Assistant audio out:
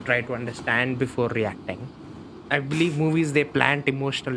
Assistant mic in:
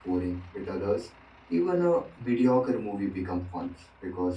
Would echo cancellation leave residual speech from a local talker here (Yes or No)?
Yes